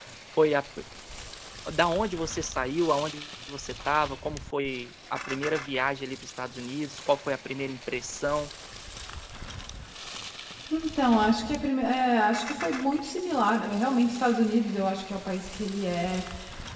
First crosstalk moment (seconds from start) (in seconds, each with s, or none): none